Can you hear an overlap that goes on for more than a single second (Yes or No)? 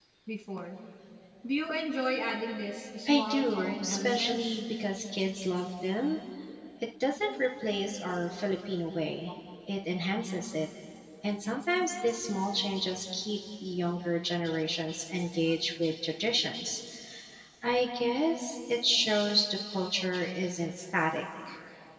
Yes